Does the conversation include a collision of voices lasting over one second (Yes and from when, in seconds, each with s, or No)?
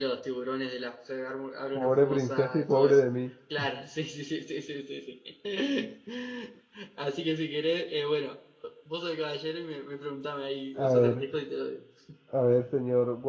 Yes, from 1.8 s